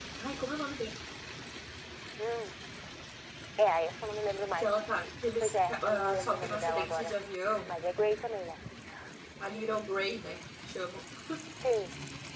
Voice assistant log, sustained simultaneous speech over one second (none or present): present